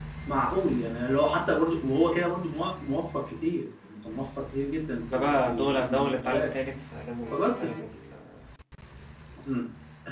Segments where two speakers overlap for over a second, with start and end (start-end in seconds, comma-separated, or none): 5.1-6.5